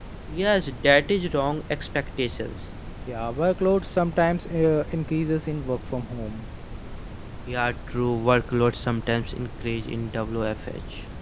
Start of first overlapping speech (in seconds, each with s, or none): none